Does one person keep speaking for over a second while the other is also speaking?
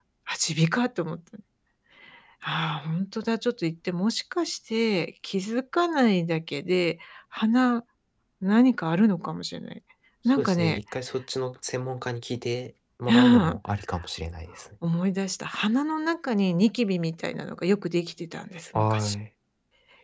No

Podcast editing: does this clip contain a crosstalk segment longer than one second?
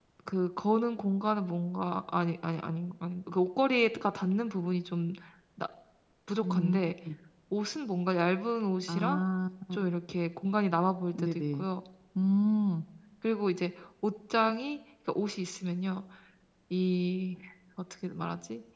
No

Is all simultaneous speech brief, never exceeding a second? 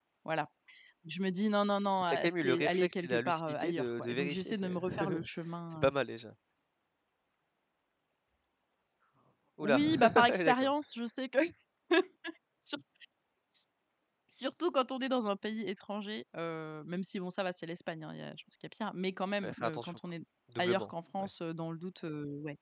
No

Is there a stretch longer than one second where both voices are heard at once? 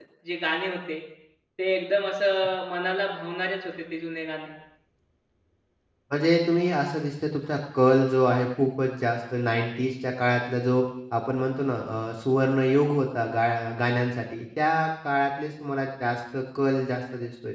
No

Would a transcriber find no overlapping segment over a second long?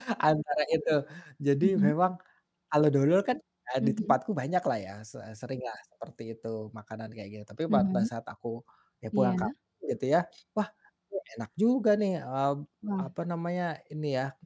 Yes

